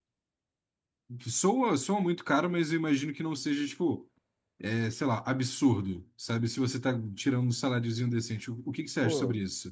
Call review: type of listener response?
taking over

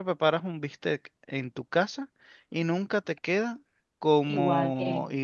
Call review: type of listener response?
listening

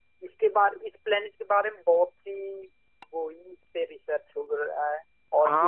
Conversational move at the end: taking over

